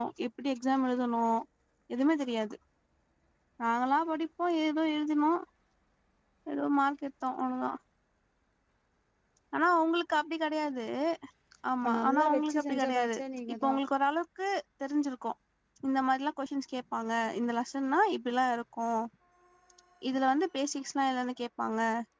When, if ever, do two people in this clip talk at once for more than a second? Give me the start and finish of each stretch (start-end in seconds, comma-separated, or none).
11.8-13.2